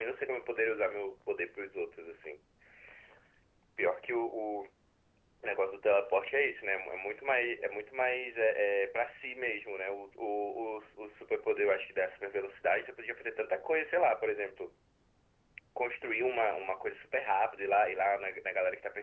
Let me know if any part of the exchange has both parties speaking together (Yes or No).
No